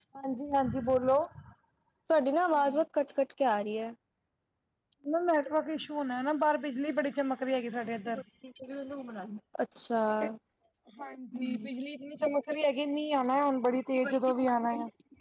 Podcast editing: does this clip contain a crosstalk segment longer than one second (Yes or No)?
No